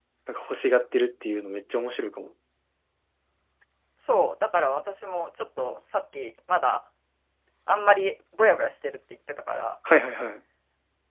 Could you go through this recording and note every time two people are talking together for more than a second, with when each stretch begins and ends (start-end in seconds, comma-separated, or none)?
none